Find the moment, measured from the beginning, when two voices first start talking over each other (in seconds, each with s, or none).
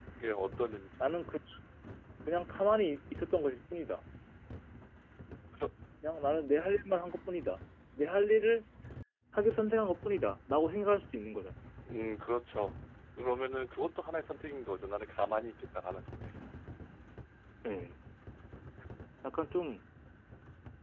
none